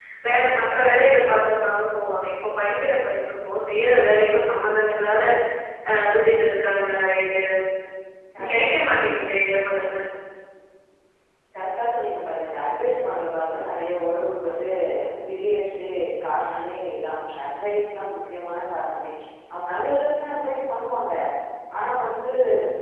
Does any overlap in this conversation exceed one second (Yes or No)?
No